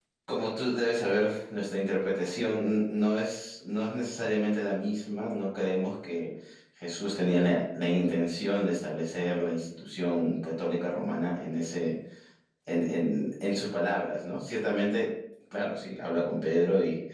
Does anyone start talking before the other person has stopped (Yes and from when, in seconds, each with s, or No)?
No